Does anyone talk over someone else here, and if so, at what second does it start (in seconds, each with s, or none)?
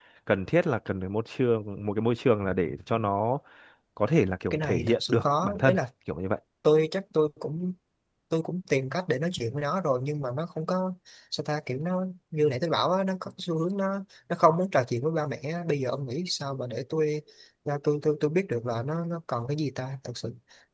4.5 s